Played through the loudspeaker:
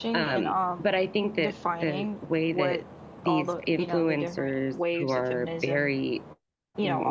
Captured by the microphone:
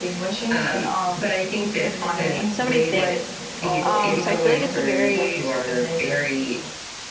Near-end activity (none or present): present